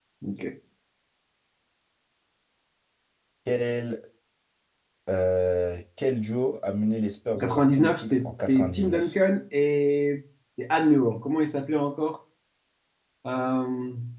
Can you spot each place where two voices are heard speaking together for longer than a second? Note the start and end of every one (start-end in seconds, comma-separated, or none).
7.3-9.1